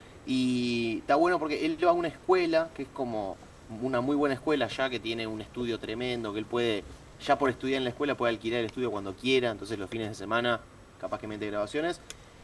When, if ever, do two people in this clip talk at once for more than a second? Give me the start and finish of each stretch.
none

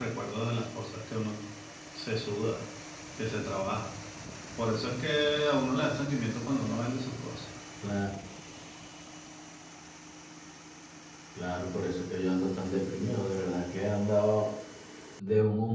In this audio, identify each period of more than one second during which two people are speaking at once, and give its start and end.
none

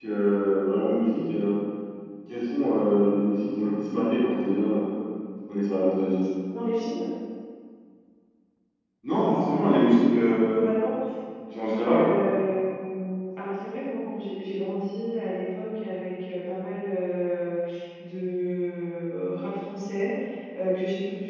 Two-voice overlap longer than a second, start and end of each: 9.6-10.8

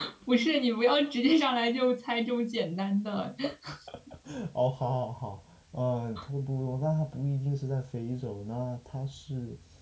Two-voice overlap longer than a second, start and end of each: none

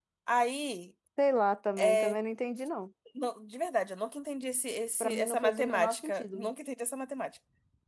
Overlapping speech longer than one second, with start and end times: 5.0-6.5

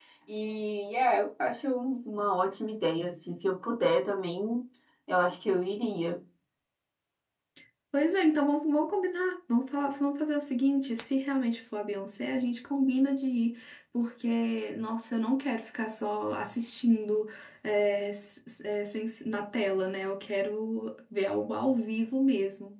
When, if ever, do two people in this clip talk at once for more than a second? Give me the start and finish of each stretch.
none

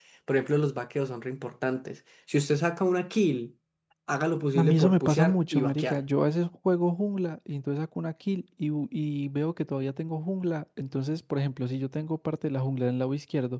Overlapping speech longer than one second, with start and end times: 4.6-6.0

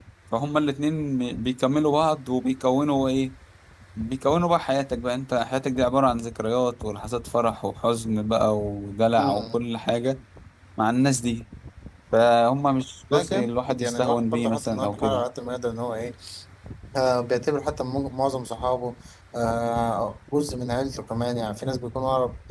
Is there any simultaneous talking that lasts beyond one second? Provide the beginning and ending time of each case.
13.1-15.2

